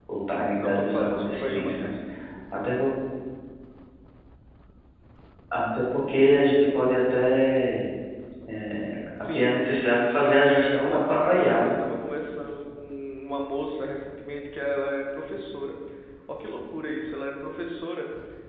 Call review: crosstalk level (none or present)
present